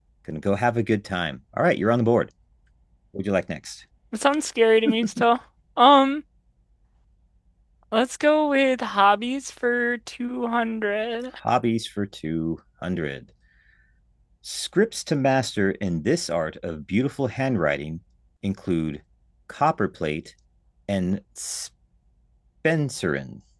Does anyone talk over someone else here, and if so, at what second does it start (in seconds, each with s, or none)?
none